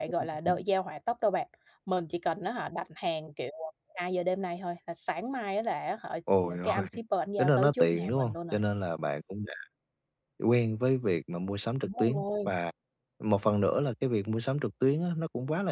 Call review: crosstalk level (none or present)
present